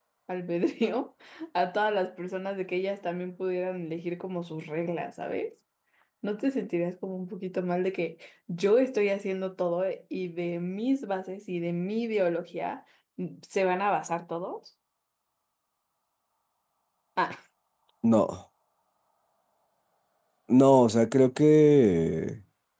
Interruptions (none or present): none